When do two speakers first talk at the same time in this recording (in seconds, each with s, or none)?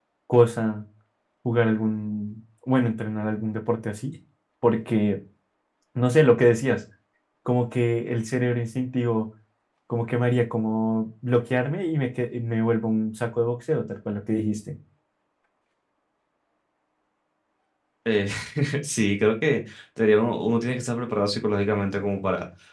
none